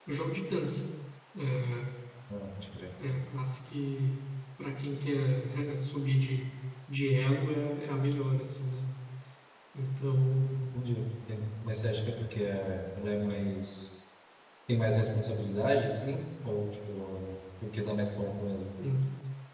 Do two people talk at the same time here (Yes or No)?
No